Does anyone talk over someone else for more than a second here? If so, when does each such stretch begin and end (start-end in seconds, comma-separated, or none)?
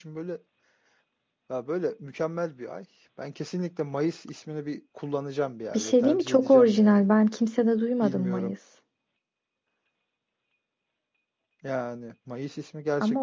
5.8-7.0